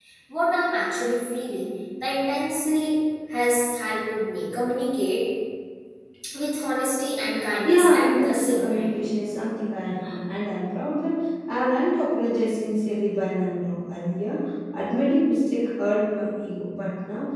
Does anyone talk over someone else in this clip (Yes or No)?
Yes